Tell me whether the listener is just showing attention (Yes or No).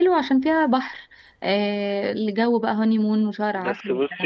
No